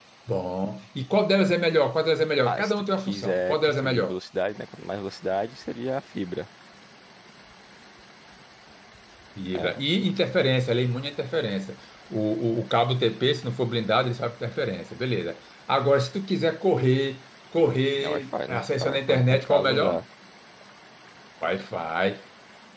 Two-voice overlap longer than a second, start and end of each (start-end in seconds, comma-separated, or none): 2.4-4.2, 17.9-20.0